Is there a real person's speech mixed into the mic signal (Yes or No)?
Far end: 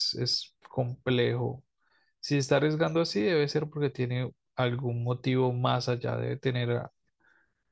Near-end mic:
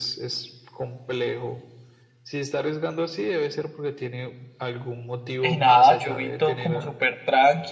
Yes